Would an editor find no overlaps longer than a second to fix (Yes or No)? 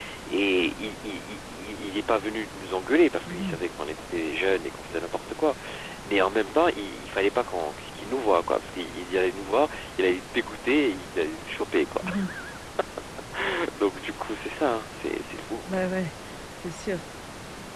Yes